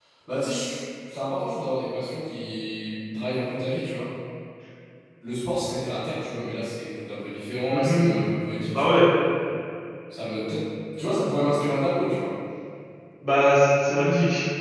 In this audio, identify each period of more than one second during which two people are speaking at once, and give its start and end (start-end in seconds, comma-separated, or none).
none